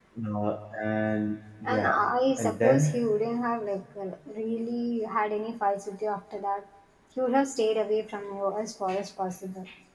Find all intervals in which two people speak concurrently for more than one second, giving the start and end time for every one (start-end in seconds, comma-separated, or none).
none